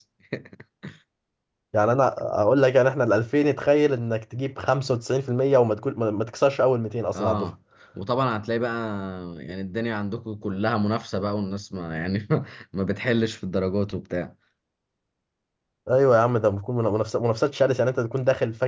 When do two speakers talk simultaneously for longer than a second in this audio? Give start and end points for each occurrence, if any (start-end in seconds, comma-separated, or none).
none